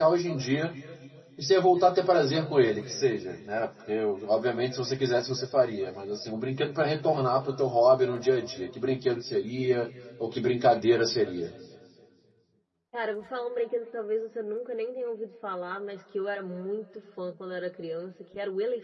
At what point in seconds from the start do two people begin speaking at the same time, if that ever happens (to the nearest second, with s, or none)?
none